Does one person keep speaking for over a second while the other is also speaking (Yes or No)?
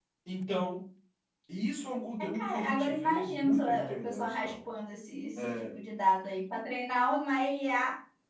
Yes